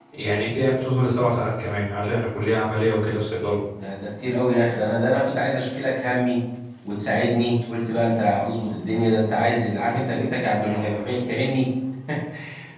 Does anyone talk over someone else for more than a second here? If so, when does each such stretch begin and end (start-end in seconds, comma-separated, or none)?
none